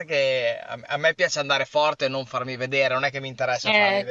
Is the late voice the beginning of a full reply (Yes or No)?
Yes